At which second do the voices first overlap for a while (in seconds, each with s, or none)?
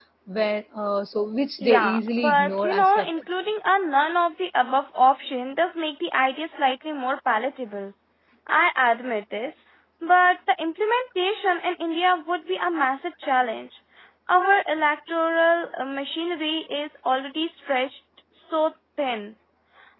1.6 s